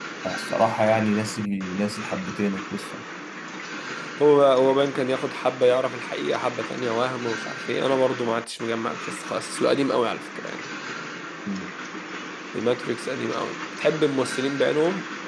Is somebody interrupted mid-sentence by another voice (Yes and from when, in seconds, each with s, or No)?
No